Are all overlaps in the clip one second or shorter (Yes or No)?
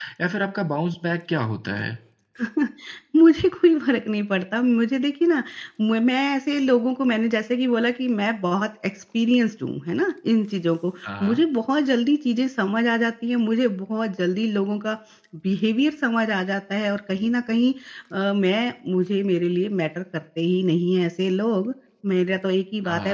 Yes